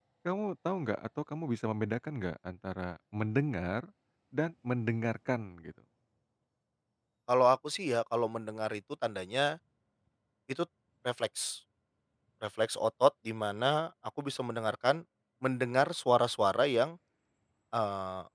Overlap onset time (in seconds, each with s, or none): none